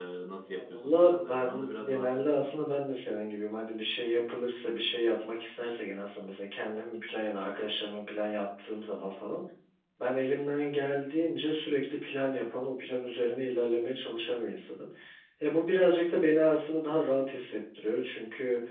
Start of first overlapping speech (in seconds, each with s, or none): 0.5 s